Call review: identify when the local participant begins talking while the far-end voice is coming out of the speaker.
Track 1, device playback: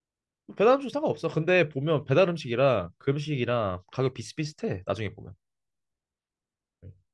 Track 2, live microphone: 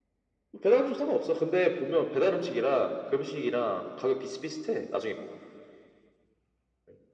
none

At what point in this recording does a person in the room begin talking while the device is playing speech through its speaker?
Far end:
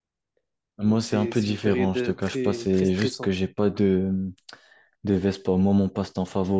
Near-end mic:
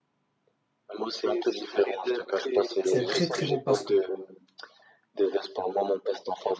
2.8 s

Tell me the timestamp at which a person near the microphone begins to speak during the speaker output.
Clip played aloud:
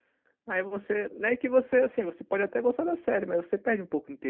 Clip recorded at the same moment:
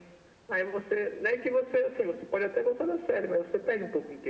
none

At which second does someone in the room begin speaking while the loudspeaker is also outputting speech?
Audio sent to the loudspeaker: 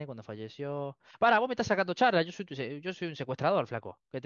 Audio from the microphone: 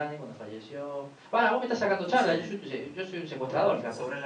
2.0 s

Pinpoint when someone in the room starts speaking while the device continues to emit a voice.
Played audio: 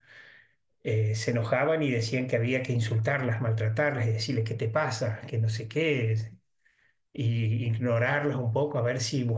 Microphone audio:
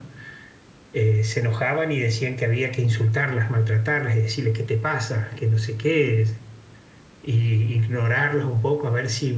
none

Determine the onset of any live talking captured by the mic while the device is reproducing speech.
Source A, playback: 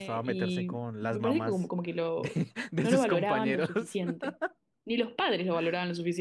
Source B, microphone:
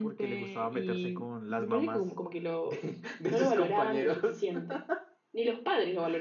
none

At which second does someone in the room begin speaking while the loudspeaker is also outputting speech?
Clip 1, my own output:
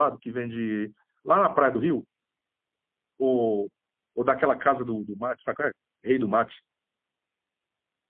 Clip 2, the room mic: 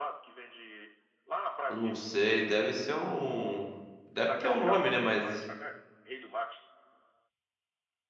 1.7 s

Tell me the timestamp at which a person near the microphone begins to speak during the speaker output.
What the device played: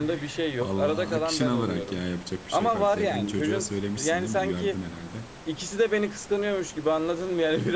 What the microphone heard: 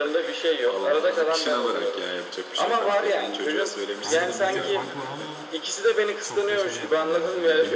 4.0 s

